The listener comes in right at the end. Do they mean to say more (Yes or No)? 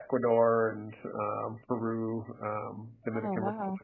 No